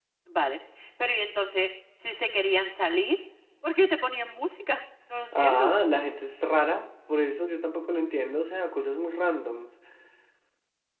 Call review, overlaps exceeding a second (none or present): none